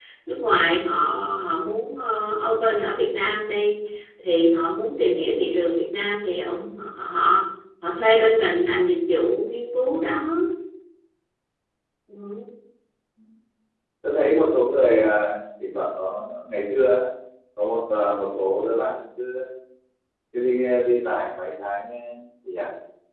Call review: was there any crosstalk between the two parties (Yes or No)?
No